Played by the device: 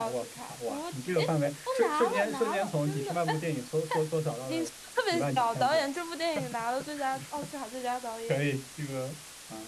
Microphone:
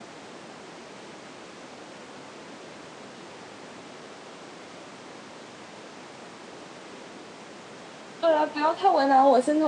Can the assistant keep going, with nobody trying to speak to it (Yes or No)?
No